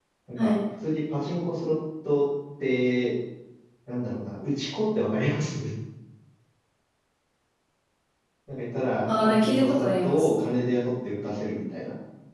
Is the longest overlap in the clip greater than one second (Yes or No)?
Yes